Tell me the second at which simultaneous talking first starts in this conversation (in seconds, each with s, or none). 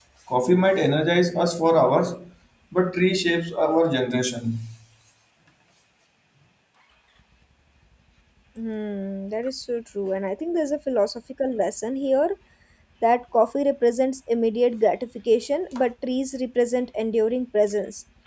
none